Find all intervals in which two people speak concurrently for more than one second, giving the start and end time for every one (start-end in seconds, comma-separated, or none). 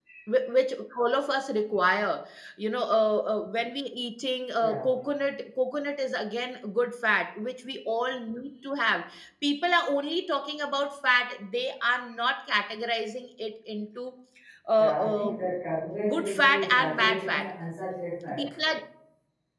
16.1-17.5